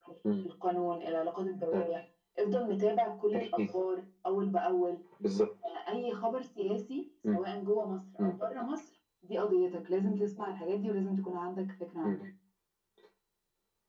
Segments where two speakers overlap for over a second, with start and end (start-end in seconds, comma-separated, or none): none